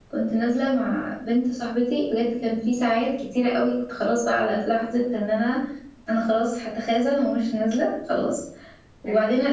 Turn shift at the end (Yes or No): No